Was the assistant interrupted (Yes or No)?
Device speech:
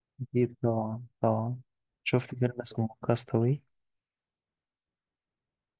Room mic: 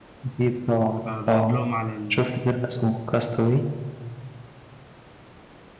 Yes